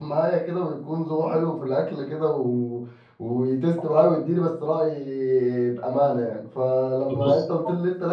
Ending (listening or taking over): listening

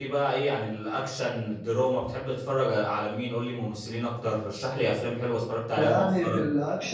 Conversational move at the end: taking over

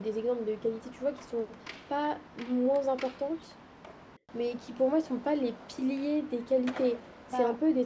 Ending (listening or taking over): listening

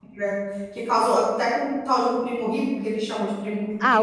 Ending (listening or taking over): taking over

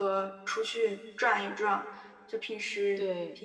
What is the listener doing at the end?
listening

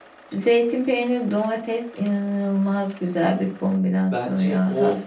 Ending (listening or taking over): taking over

